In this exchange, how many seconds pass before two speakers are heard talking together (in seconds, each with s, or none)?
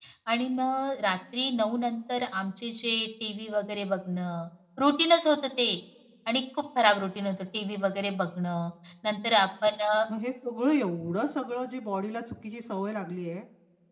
none